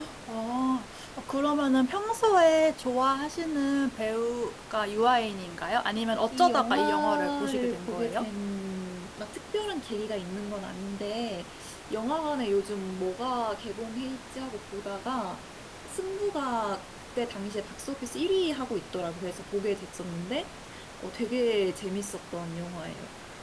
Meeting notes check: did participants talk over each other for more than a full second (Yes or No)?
Yes